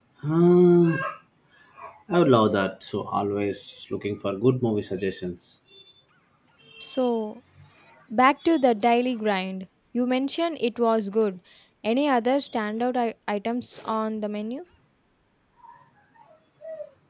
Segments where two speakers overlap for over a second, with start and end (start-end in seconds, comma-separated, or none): none